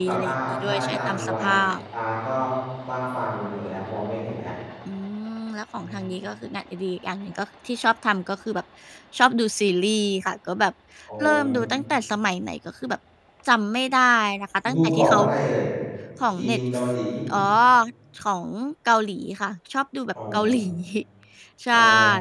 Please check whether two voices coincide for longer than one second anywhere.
Yes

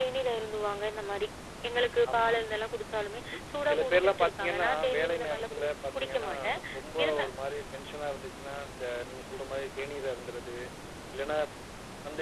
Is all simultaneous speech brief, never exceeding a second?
No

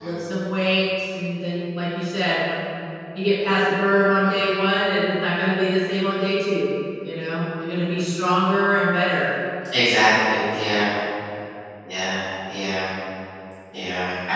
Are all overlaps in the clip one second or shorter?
Yes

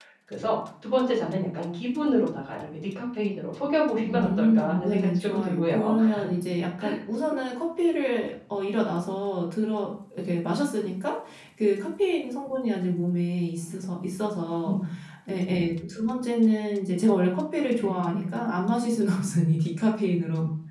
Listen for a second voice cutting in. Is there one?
Yes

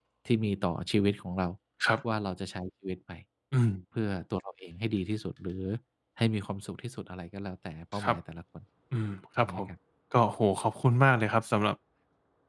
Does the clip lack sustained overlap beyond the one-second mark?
Yes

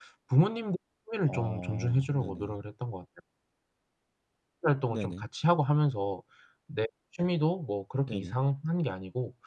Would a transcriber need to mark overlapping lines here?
Yes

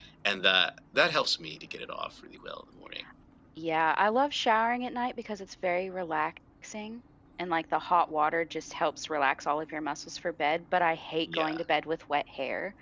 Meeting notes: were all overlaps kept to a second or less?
Yes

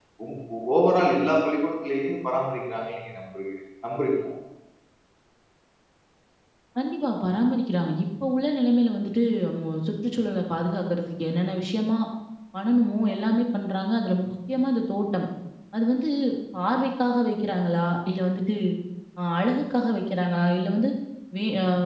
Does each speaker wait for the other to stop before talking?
Yes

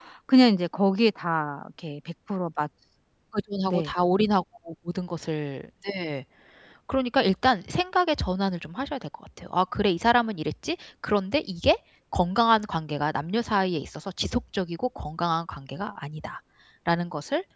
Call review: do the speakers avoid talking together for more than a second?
Yes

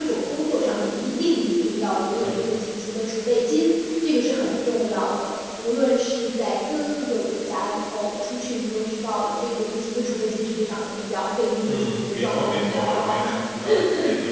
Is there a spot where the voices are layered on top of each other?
Yes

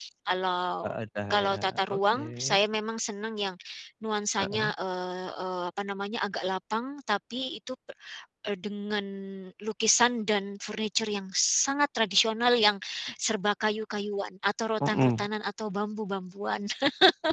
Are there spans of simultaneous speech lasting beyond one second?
Yes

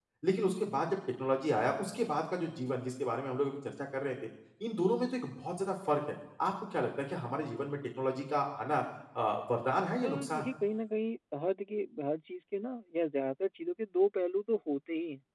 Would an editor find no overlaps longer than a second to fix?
Yes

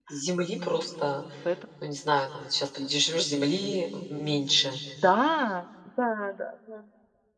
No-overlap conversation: Yes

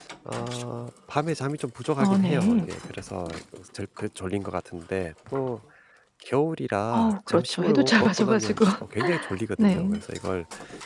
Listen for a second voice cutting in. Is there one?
Yes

